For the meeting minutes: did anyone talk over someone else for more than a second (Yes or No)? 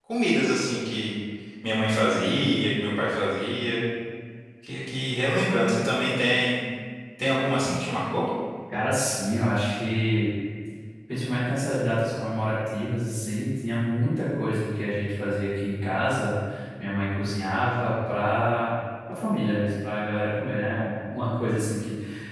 No